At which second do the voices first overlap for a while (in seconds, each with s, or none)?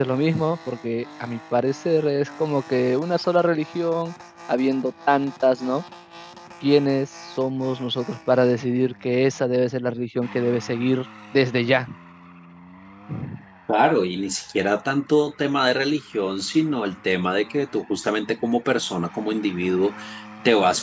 none